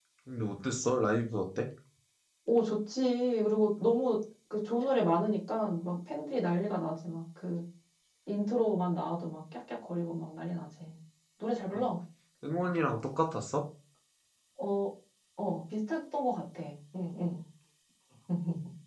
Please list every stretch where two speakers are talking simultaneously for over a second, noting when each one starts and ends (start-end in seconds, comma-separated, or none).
none